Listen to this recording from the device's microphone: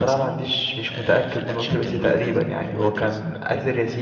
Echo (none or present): present